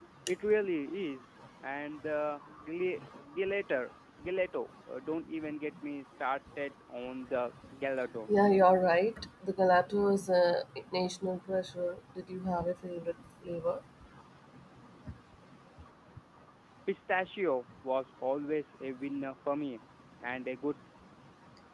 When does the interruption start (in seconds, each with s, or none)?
none